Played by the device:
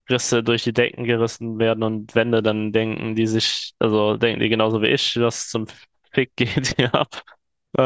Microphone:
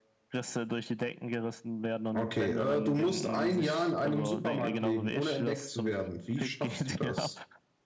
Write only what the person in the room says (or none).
Okay, äh, du musst ein Jahr in einem Supermarkt leben, ohne entdeckt zu werden. Wie schaffst du das?